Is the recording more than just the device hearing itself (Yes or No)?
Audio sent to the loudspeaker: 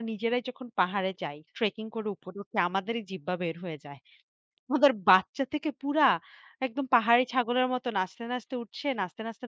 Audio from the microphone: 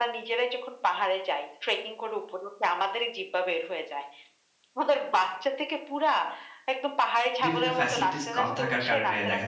Yes